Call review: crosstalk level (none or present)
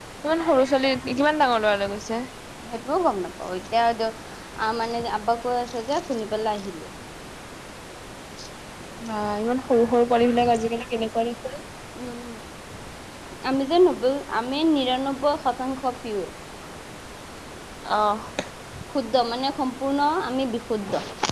none